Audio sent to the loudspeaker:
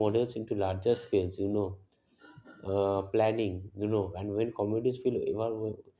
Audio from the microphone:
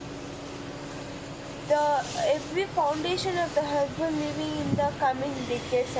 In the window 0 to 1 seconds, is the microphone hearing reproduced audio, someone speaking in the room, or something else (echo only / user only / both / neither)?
neither